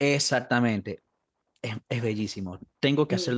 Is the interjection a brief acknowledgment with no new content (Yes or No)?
Yes